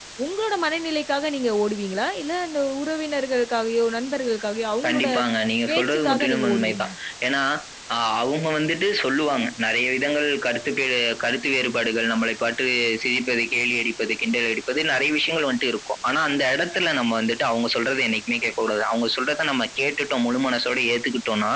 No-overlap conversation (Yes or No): No